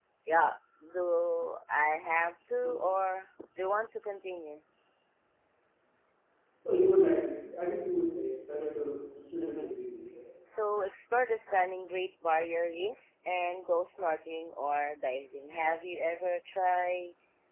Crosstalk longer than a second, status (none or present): none